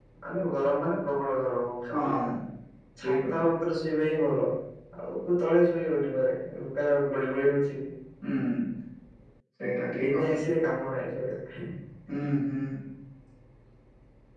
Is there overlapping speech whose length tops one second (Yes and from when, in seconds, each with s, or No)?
No